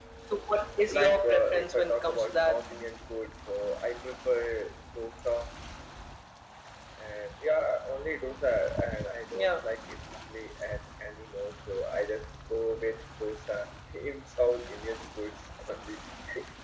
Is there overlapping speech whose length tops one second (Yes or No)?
Yes